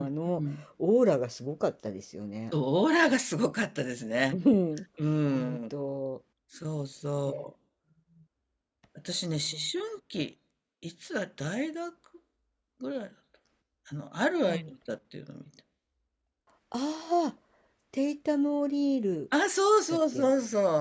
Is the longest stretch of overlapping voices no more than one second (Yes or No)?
Yes